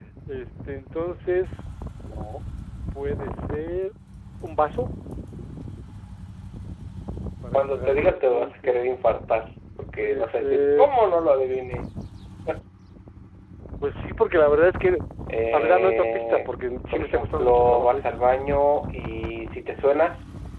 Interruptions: present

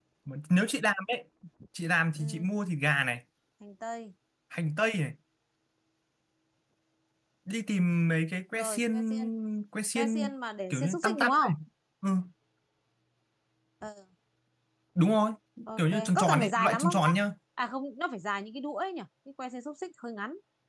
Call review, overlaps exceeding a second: present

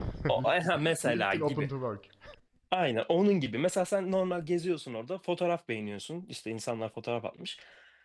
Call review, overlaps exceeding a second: present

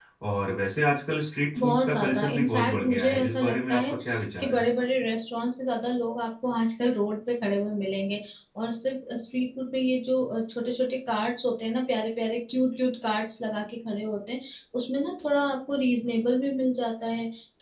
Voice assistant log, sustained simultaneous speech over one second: present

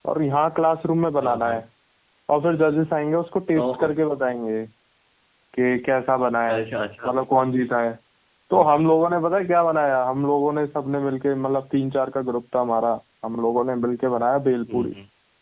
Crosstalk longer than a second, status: none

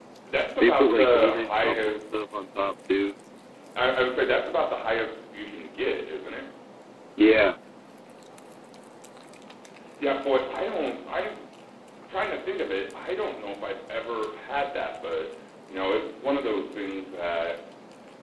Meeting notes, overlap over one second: present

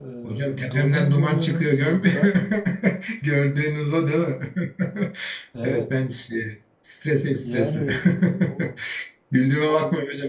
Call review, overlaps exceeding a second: present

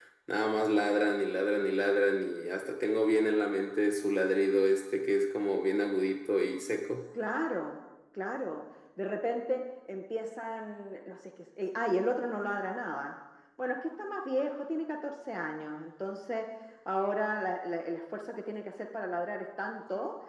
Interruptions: none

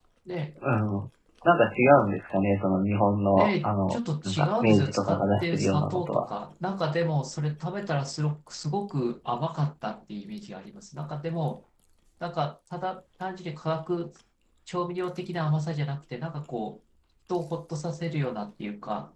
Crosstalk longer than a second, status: present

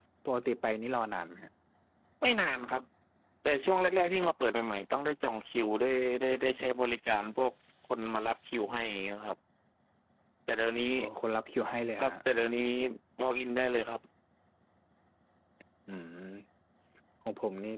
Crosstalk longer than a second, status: none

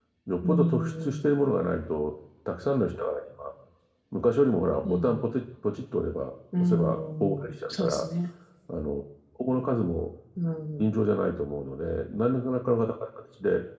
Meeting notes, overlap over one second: present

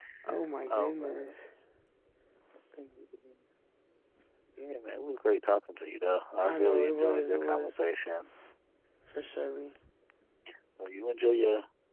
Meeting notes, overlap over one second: present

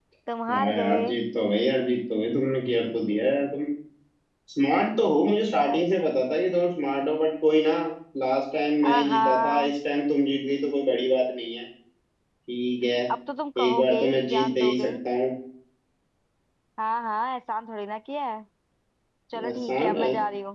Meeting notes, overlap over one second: present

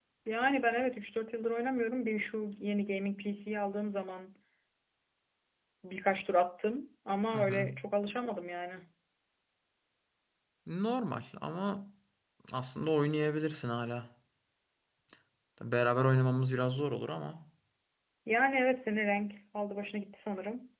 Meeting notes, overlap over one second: none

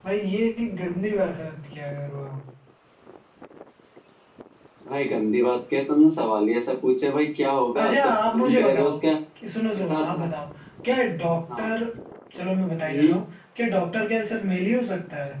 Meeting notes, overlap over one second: present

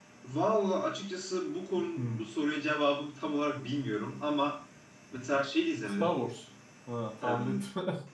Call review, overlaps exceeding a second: none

